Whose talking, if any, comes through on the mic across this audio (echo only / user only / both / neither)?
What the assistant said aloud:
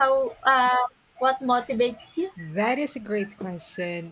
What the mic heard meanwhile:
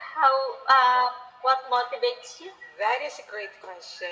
echo only